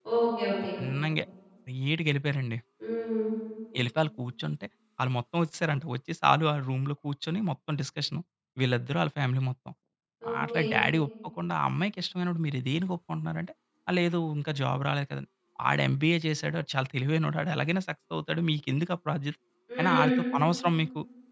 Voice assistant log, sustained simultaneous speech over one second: none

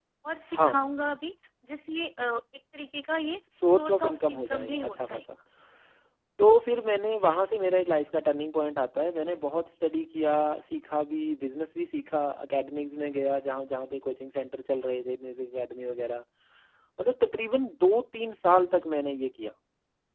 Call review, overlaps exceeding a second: present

